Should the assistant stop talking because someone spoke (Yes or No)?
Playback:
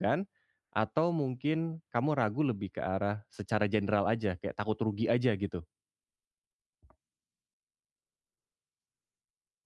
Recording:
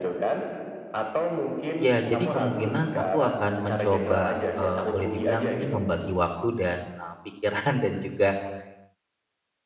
Yes